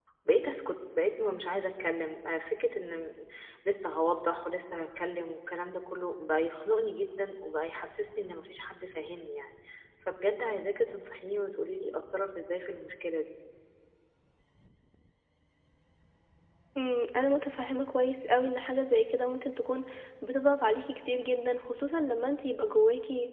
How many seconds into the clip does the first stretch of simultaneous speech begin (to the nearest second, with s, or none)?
none